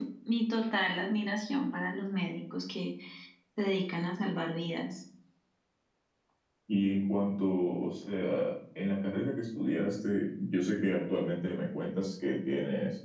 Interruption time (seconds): none

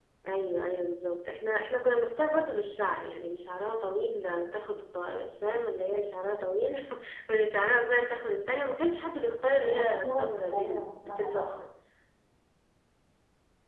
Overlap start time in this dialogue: 10 s

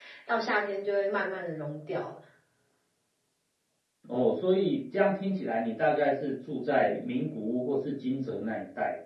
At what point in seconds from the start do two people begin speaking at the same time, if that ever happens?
none

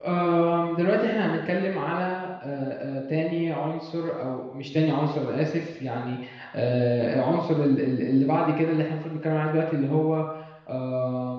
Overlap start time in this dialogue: none

